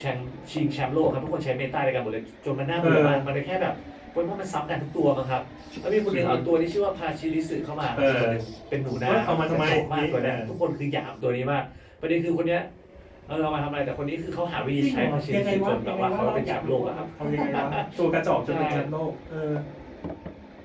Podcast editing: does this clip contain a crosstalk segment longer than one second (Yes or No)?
Yes